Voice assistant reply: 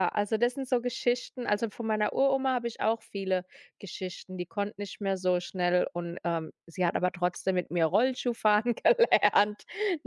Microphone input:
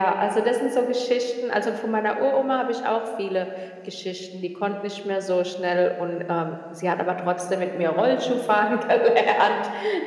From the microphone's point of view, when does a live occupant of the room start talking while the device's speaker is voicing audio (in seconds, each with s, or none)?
none